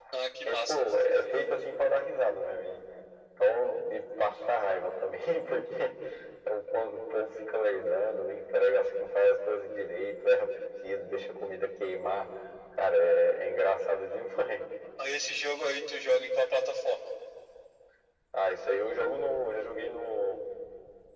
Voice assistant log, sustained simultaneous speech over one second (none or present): none